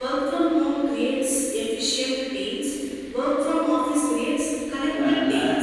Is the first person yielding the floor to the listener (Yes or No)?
Yes